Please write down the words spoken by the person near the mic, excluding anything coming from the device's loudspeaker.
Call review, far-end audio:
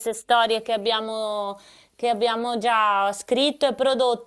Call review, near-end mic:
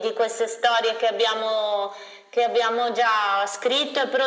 none

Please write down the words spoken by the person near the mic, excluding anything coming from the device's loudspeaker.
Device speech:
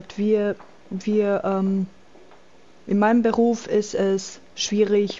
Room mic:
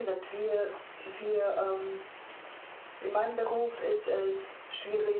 none

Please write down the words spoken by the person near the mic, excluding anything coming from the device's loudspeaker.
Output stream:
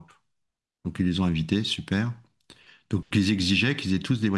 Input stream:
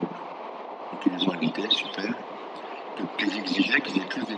none

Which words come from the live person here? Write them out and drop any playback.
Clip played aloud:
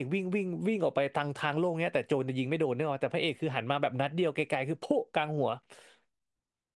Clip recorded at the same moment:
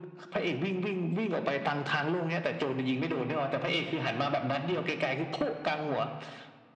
none

